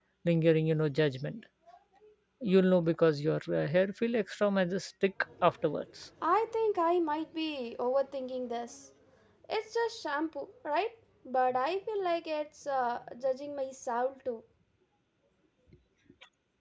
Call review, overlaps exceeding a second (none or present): none